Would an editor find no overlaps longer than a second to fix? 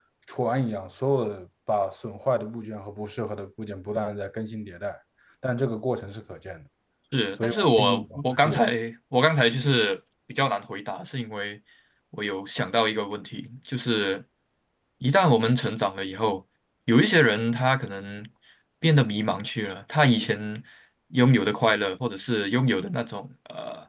No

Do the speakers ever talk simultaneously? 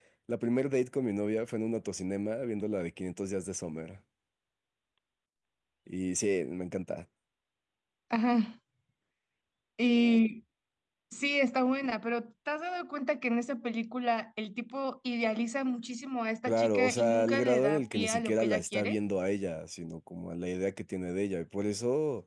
Yes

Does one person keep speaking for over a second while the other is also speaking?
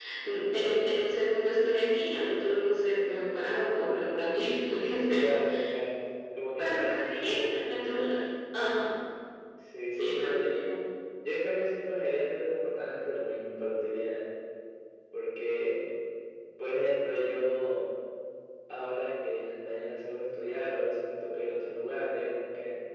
Yes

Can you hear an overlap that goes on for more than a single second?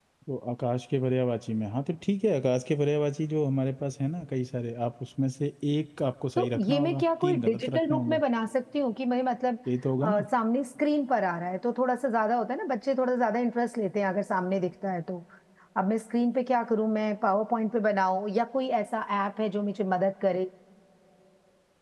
Yes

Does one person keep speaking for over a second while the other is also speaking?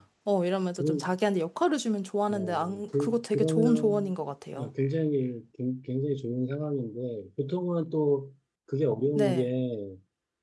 Yes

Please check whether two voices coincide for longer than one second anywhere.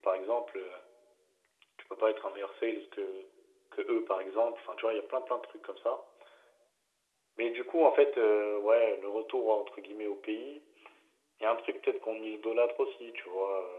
No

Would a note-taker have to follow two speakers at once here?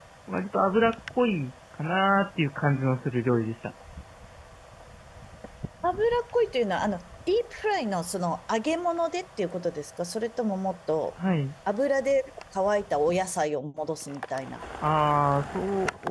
No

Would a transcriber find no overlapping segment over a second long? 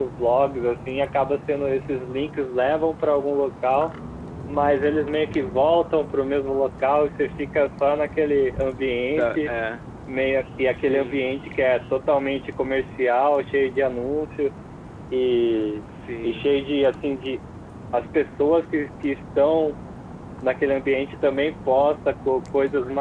Yes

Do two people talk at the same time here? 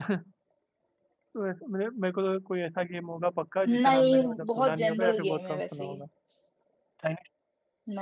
Yes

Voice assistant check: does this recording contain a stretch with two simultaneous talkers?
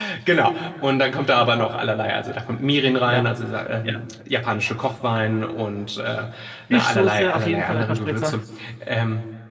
Yes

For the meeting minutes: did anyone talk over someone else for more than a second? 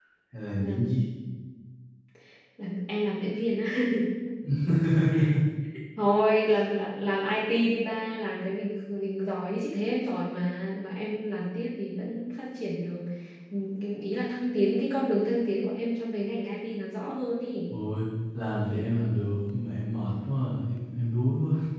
No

